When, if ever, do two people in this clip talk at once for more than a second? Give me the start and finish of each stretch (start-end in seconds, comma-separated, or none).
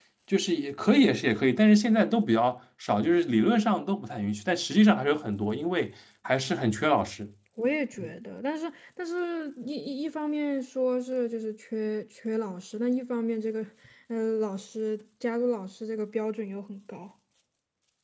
none